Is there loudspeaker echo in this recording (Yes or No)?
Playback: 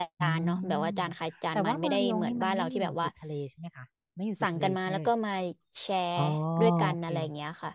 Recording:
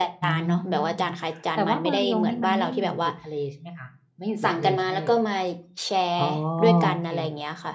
Yes